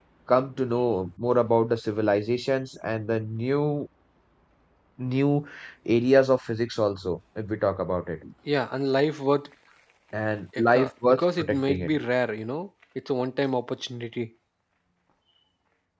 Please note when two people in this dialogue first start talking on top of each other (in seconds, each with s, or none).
10.6 s